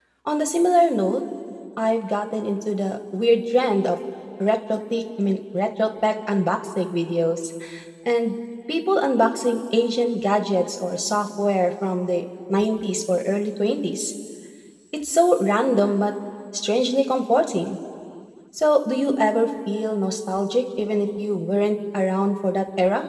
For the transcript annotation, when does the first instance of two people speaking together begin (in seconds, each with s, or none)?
none